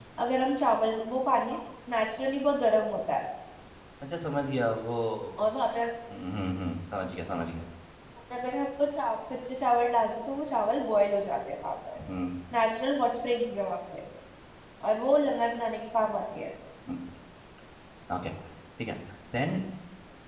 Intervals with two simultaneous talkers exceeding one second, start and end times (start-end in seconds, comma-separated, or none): none